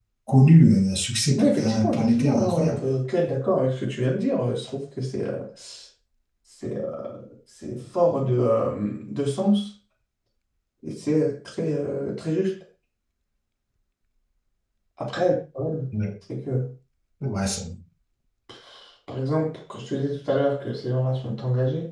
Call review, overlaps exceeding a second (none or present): present